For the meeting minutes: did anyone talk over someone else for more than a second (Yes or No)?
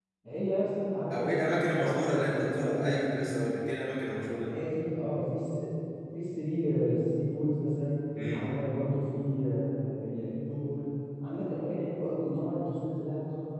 Yes